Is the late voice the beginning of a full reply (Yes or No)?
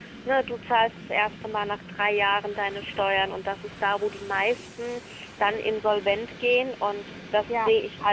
Yes